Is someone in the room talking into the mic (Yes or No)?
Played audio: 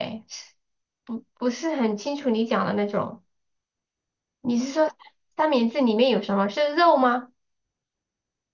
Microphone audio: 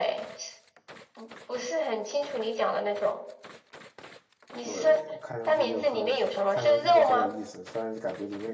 Yes